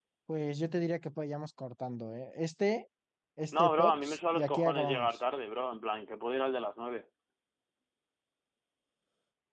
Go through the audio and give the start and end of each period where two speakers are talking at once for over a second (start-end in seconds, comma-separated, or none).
3.5-5.2